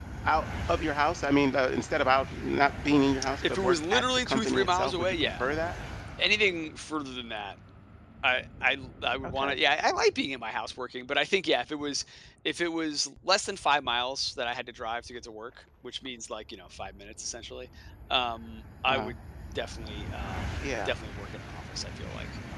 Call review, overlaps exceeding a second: present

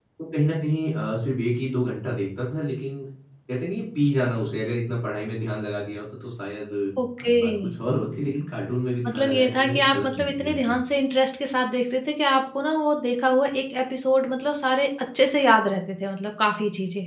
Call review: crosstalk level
present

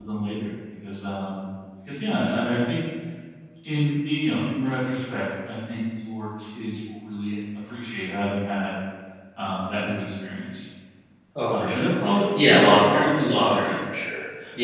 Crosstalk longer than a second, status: present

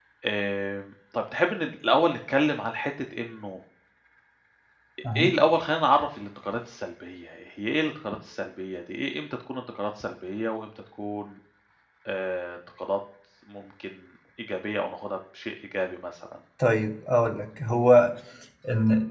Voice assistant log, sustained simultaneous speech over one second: none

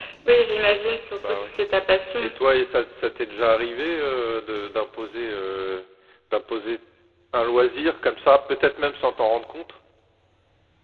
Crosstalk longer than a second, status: none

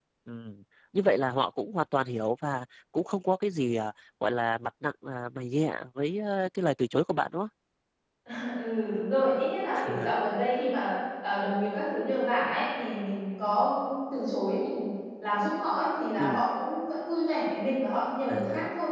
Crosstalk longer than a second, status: none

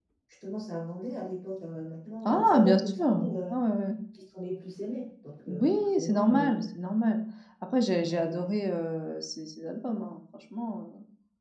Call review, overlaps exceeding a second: present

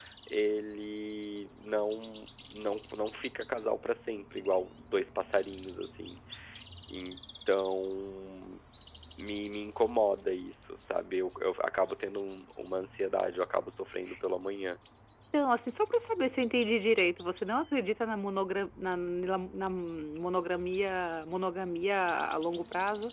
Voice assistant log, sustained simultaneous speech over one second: none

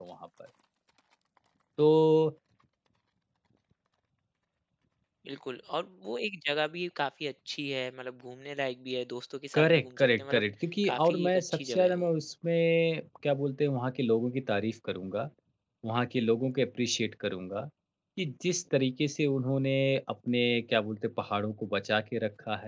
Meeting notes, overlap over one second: present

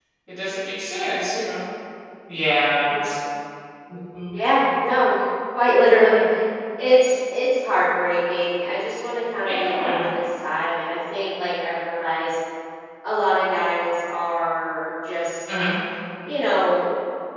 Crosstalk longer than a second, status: none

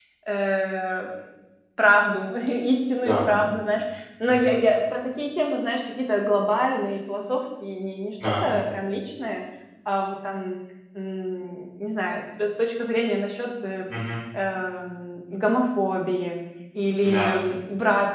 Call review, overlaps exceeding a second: none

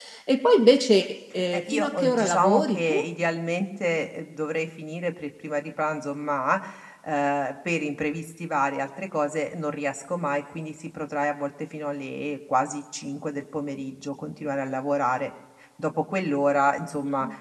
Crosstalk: present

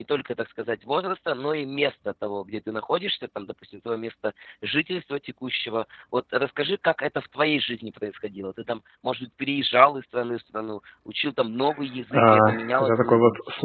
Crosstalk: present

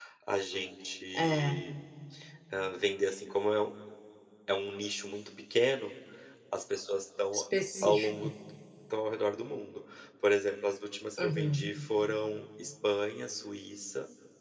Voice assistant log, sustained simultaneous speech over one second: none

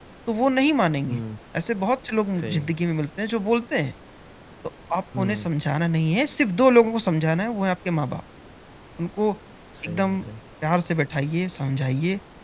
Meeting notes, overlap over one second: none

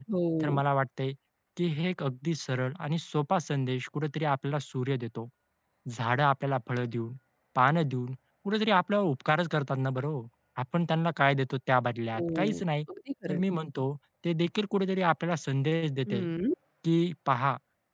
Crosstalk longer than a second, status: none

